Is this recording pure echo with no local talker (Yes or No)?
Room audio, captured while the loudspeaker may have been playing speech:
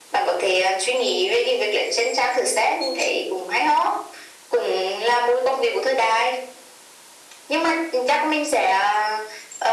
Yes